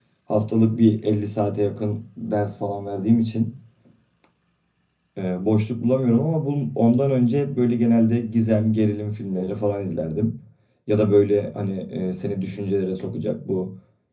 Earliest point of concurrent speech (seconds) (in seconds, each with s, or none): none